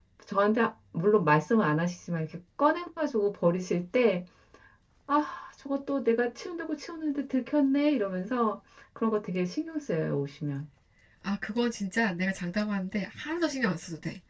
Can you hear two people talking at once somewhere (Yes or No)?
No